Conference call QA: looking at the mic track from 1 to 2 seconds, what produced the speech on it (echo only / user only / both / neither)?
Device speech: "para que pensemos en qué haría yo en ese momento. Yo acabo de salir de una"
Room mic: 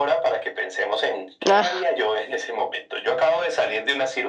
both